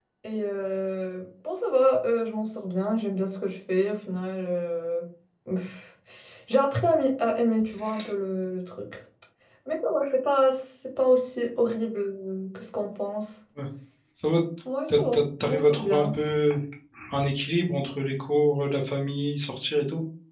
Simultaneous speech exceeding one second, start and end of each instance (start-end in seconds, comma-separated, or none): 14.9-16.1